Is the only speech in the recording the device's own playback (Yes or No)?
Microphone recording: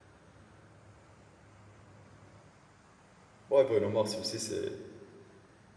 No